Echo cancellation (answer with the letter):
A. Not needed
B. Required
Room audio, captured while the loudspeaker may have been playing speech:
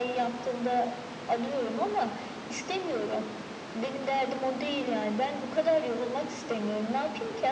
B